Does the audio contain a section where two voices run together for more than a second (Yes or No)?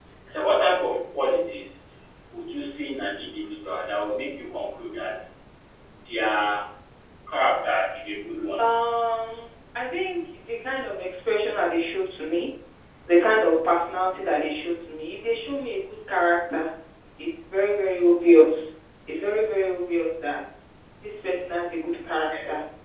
No